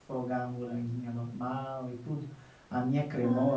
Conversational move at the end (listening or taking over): listening